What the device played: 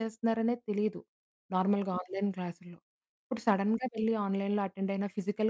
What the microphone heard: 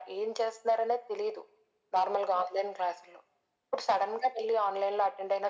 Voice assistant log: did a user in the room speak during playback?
No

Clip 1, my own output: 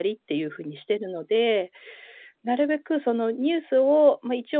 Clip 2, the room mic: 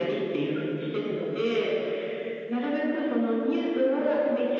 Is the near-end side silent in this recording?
Yes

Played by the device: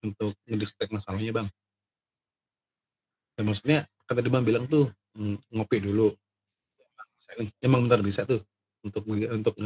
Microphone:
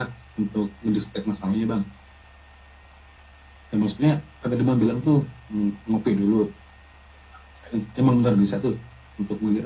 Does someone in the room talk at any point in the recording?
No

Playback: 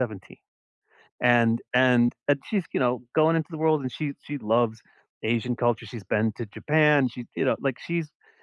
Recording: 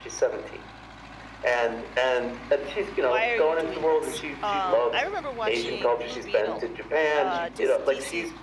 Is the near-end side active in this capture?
Yes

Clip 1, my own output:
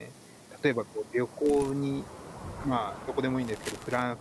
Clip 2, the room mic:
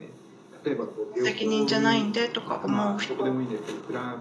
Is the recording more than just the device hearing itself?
Yes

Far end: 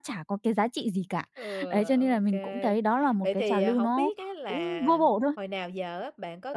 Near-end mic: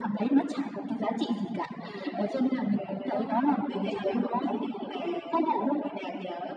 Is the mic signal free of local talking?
No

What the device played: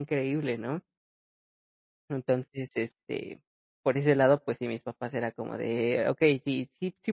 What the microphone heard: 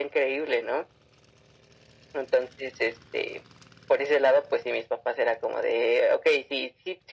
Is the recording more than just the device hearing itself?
No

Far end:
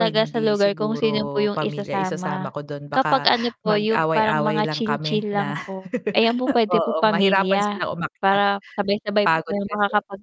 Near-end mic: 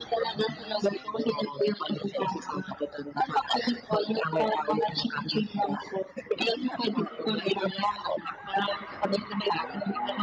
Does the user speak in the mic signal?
No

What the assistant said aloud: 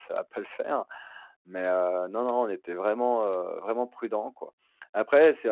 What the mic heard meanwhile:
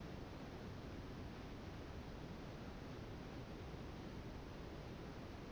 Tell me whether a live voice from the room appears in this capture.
No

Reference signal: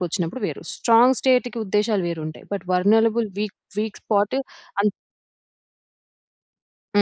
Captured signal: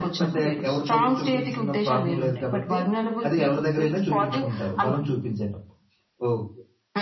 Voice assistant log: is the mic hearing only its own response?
No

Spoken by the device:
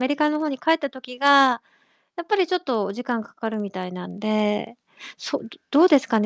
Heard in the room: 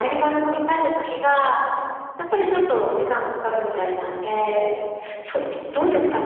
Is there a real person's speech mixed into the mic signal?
No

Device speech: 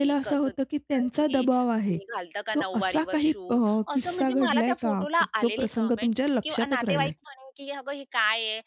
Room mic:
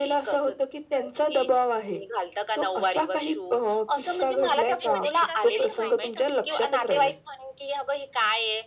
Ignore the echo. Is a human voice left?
Yes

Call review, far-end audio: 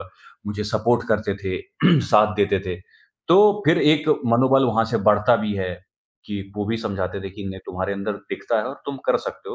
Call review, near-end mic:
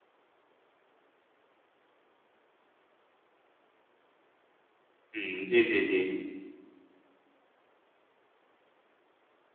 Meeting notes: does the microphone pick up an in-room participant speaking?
Yes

